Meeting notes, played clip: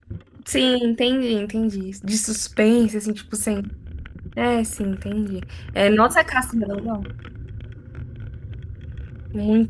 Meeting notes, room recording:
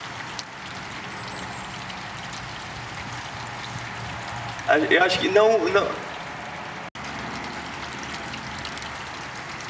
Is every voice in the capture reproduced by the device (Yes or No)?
No